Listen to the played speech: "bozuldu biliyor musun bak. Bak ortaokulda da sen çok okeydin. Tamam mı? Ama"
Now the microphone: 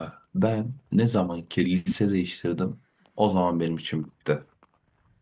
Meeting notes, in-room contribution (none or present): present